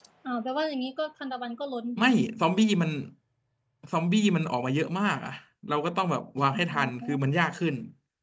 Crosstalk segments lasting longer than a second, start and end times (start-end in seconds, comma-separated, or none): none